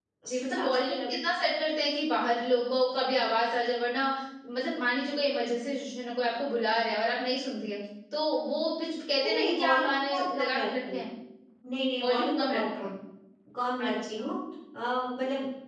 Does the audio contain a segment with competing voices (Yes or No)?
Yes